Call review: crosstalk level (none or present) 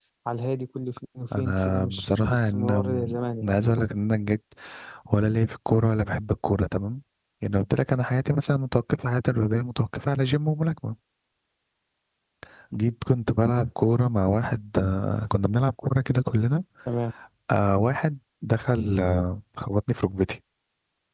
present